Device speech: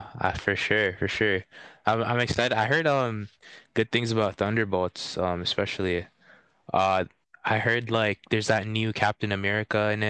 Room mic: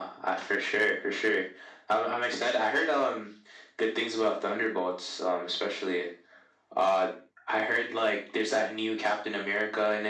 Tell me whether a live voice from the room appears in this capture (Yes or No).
No